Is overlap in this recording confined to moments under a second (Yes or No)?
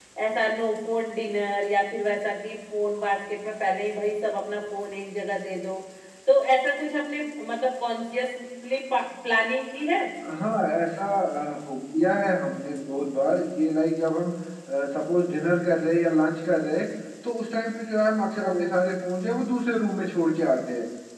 Yes